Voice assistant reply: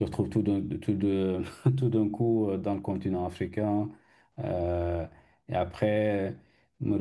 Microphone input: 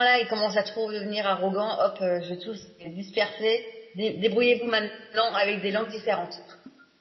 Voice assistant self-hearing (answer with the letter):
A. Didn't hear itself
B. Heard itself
A